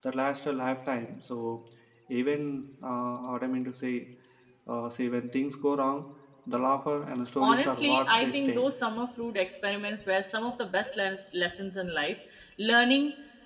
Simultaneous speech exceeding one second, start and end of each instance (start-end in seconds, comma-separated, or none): 7.4-8.7